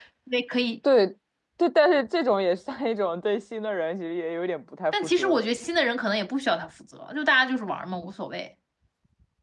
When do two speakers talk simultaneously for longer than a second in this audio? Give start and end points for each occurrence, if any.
none

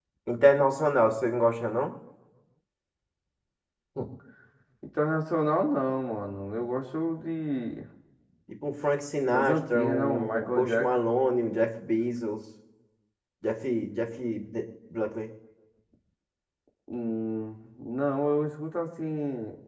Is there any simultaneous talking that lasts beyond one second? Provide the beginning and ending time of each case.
9.3-11.0

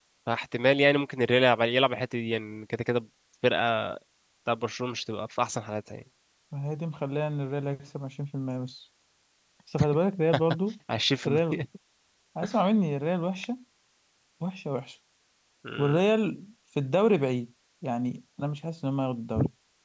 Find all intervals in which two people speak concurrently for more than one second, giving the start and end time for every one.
none

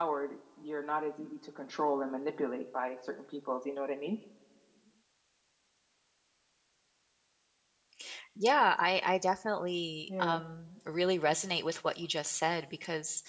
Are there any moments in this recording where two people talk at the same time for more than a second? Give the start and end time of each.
none

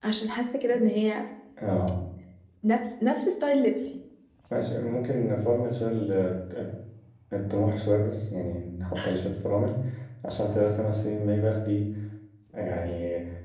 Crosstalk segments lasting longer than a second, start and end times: none

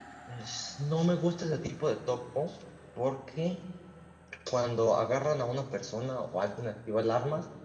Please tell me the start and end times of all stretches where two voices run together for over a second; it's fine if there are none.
none

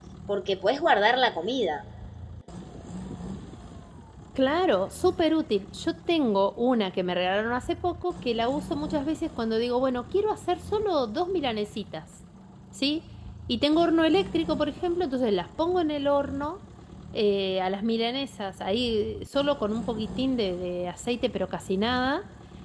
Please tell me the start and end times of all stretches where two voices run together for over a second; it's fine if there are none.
none

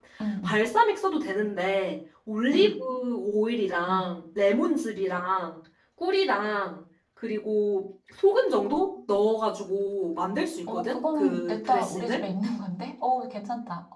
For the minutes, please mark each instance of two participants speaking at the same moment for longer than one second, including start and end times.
10.7-12.2

